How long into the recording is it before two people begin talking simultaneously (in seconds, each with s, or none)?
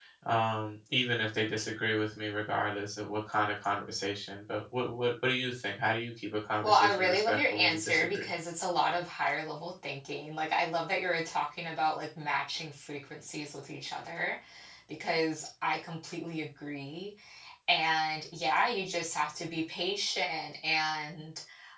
6.6 s